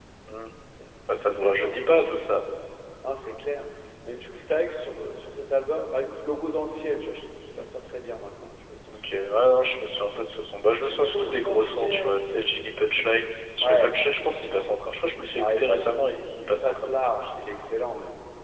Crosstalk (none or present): present